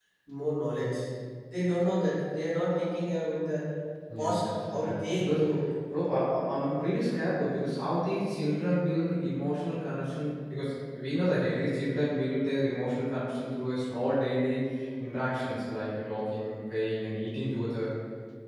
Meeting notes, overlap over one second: present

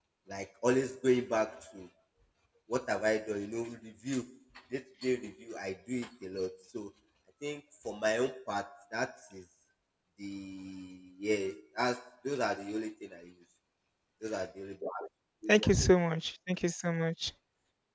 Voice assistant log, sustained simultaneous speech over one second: none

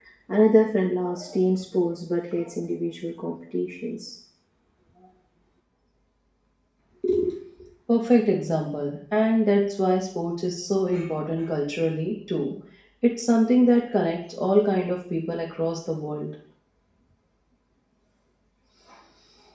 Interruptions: none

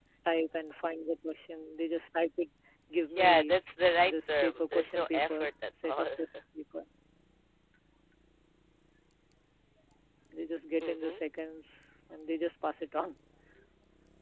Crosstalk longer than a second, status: present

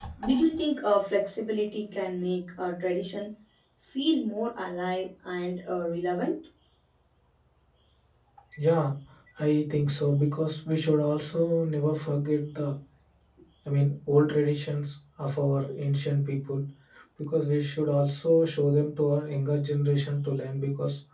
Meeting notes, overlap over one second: none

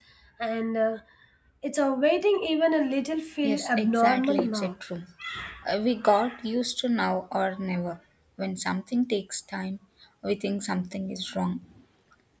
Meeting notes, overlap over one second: present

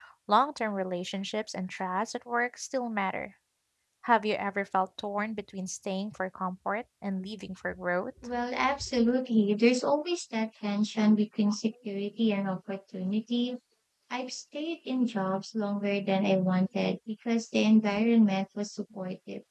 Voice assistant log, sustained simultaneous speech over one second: none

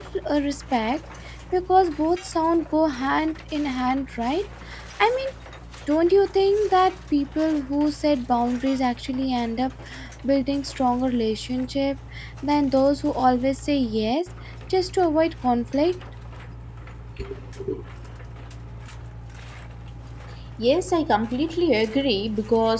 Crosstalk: none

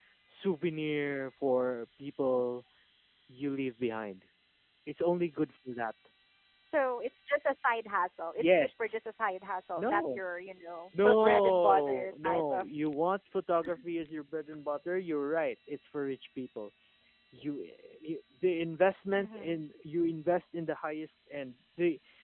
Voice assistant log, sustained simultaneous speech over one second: present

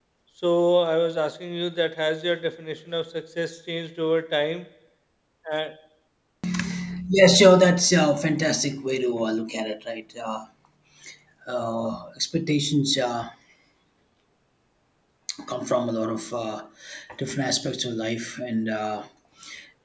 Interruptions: none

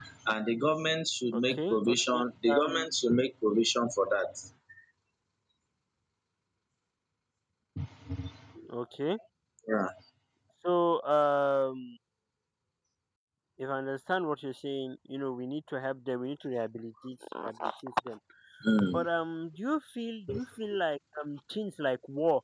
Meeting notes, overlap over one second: present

